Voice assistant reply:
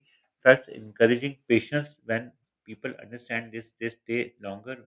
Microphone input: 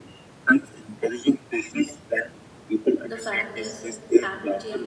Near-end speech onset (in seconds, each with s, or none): 3.1 s